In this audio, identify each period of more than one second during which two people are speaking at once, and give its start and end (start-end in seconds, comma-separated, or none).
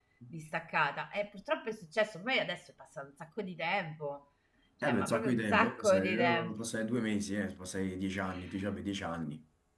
4.8-6.5